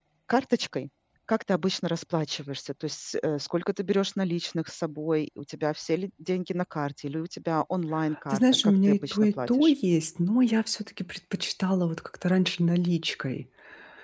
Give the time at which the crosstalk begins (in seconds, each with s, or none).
8.3 s